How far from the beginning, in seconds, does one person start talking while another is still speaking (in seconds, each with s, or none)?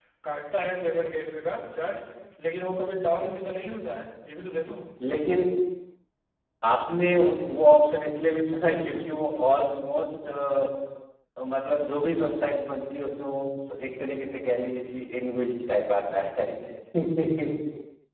none